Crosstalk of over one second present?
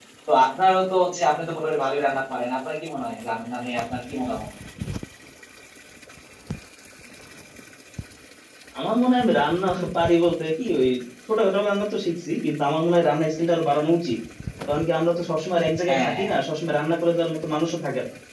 No

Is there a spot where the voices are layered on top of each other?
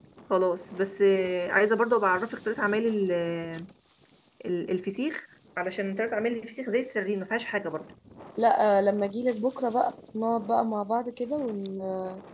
No

